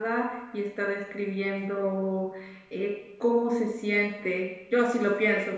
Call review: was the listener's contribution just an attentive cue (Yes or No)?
Yes